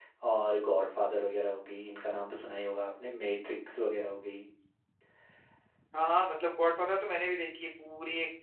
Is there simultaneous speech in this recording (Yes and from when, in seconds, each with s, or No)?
No